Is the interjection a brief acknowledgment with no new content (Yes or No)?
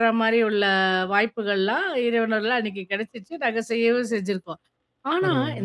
Yes